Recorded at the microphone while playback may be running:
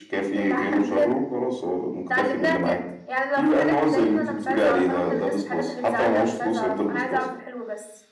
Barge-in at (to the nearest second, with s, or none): none